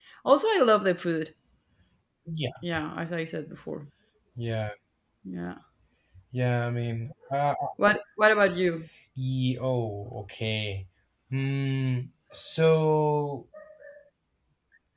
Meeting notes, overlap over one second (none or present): none